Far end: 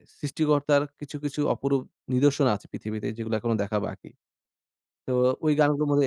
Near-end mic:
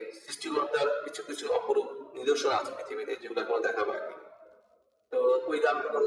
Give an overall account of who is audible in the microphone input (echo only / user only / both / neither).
echo only